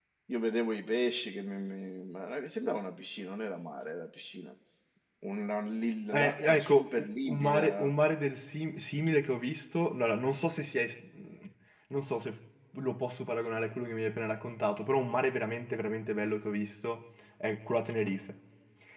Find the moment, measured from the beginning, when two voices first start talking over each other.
6 s

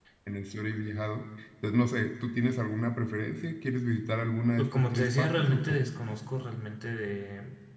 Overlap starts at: 5 s

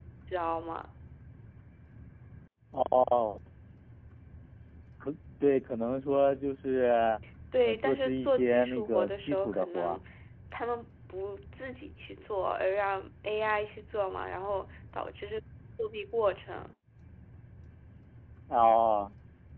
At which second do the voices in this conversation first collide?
8 s

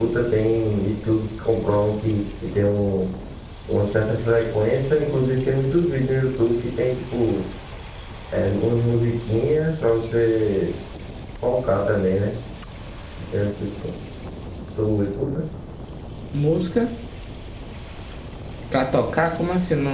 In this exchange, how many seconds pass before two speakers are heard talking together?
none

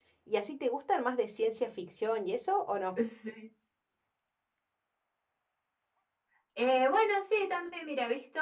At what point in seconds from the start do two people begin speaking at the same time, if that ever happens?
none

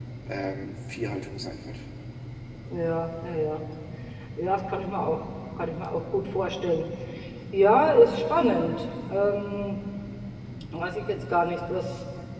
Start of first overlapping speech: none

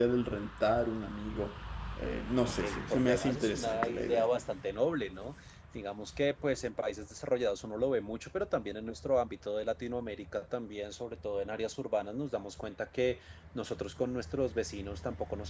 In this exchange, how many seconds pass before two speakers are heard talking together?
2 s

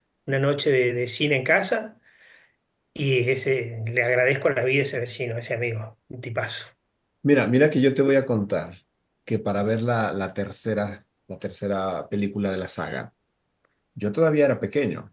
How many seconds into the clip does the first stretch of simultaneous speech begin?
none

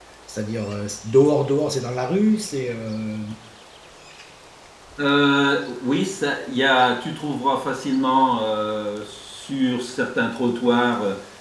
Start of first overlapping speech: none

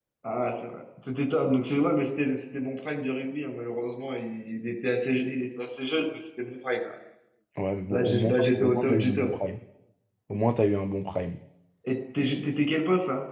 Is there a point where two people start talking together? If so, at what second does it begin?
8 s

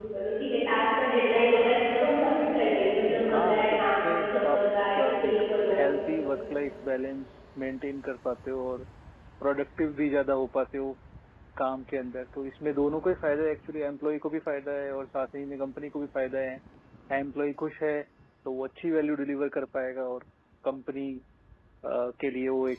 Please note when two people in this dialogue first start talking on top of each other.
3 s

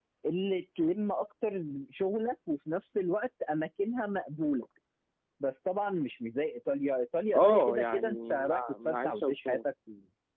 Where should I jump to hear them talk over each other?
7 s

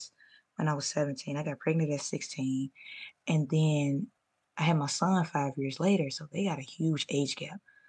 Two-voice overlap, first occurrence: none

